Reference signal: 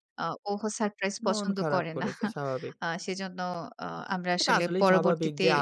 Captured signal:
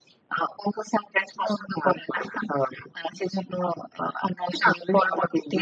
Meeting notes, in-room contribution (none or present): none